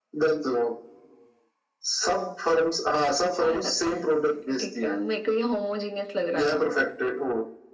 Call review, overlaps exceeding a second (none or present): present